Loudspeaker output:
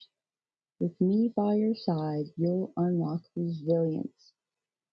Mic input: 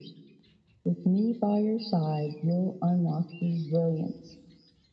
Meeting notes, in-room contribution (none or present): none